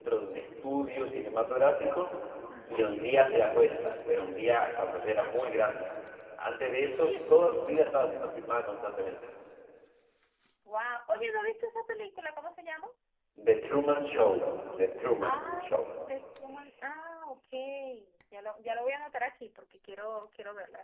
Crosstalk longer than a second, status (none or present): none